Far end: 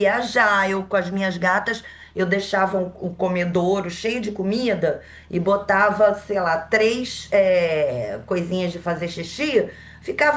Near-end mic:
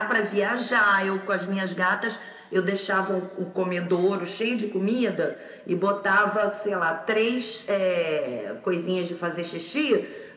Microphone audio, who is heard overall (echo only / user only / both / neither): echo only